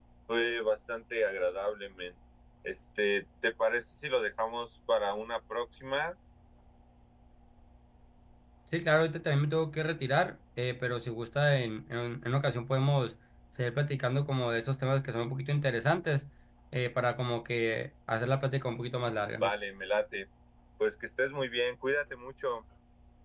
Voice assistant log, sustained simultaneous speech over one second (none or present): none